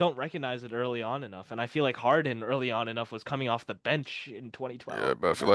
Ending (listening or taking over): taking over